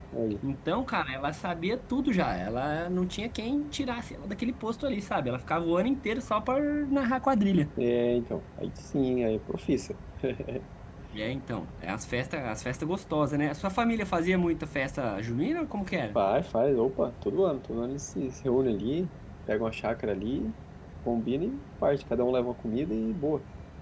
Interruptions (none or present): none